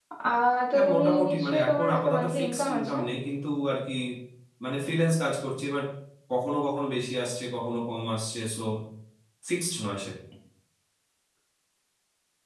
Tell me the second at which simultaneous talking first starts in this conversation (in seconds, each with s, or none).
0.7 s